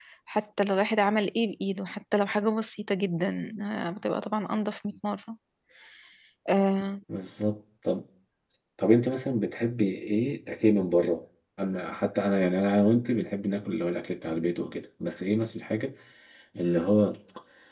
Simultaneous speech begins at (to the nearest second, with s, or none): none